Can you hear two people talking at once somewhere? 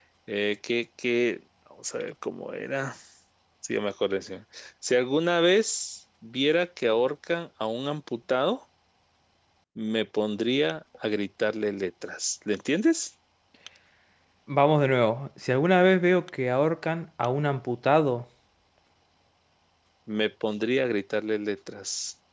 No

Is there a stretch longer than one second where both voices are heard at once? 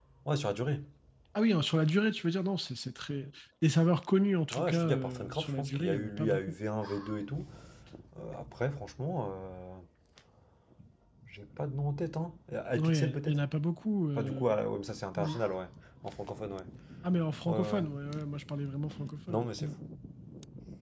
Yes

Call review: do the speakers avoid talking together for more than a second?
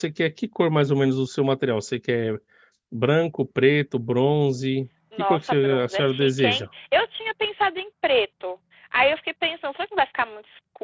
No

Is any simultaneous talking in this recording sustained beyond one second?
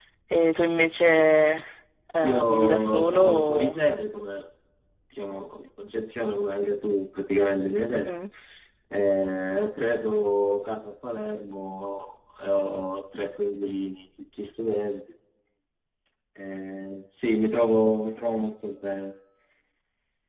Yes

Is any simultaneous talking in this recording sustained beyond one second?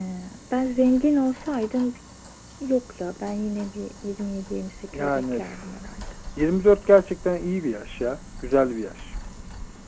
No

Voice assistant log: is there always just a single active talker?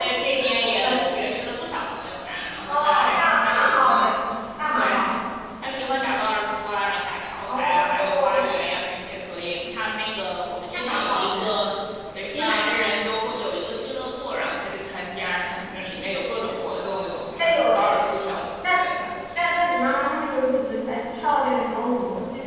No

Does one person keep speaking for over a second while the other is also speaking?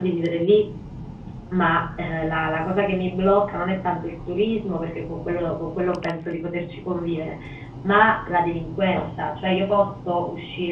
No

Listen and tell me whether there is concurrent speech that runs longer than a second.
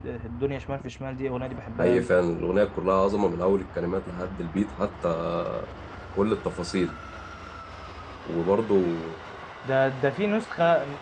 No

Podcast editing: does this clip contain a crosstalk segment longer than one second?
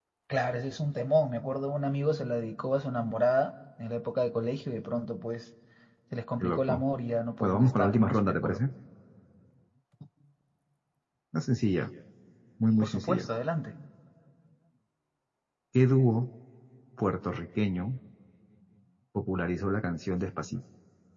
Yes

